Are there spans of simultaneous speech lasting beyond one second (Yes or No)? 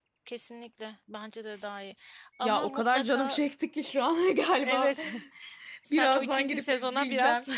Yes